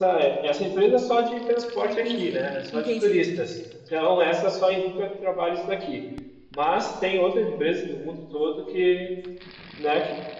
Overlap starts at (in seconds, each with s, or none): 1.6 s